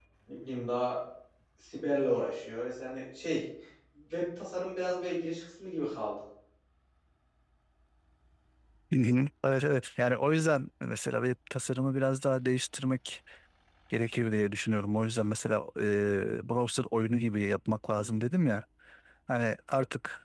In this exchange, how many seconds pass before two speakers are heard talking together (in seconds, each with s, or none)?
none